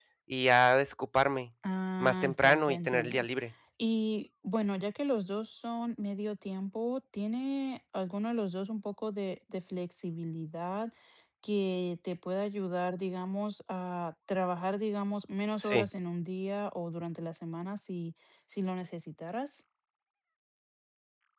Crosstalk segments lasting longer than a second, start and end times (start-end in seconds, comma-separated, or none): 2.0-3.2